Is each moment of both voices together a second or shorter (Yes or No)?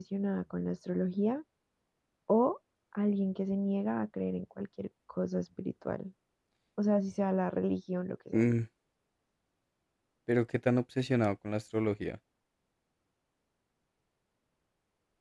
Yes